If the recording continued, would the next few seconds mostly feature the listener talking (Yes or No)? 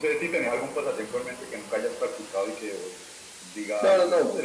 Yes